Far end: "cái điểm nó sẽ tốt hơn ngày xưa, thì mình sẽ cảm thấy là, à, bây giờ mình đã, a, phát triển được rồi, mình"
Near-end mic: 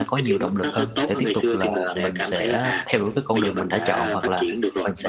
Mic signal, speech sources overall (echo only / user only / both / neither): both